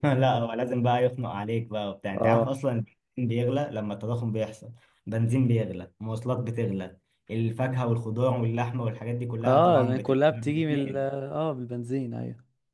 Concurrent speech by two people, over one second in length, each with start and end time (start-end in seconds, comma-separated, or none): 9.4-11.0